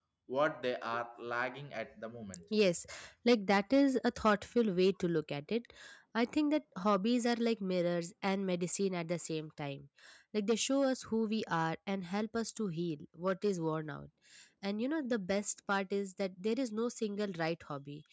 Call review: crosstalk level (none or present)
none